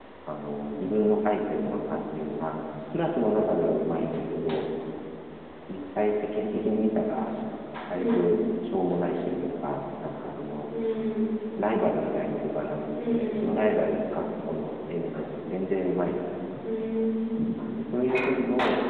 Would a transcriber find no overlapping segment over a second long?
Yes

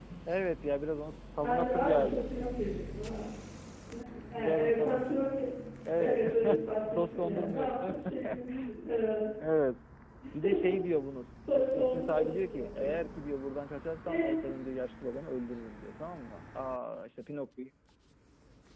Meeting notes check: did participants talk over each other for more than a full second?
Yes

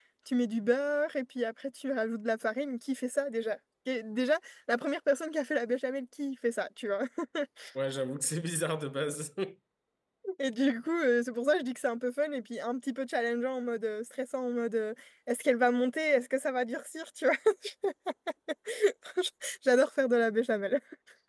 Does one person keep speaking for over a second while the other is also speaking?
No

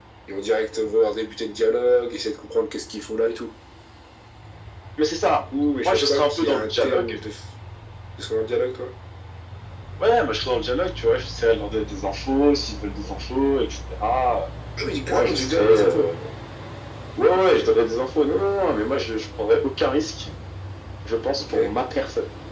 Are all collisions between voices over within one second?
No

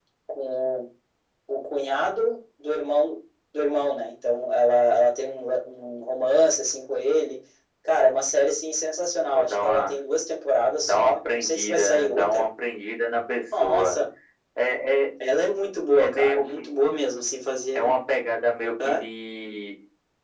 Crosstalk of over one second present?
Yes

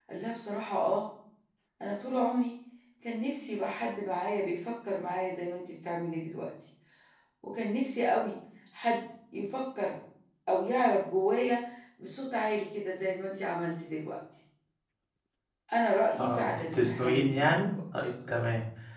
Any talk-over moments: Yes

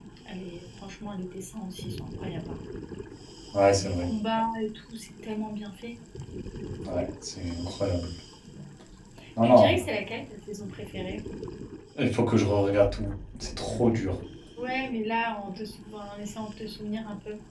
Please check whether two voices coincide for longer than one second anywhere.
No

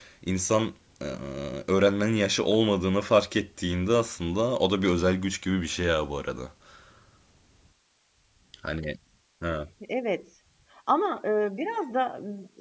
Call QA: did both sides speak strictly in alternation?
Yes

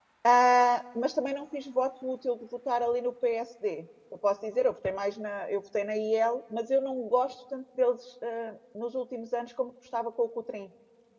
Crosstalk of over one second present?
No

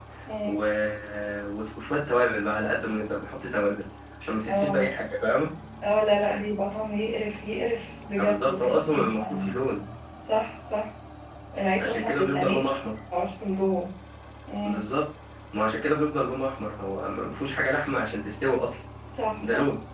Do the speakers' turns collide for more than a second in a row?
Yes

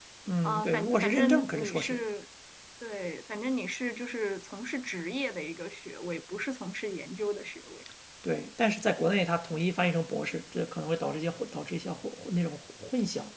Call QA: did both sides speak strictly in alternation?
No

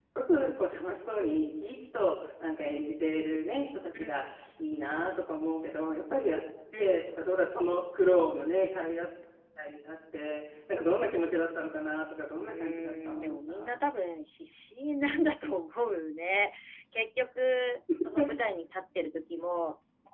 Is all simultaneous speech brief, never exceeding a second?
No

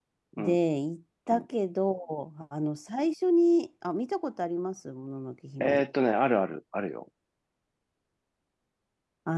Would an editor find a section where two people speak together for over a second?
No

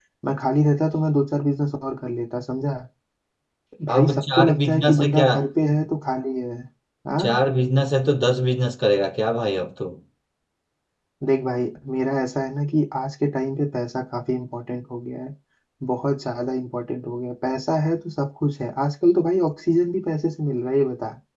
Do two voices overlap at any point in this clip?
Yes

